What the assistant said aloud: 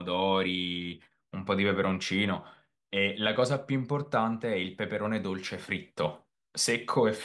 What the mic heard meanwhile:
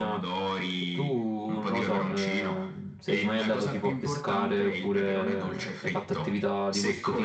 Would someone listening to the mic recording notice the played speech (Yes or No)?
Yes